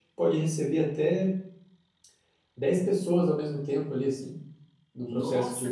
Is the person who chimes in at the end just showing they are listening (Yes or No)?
No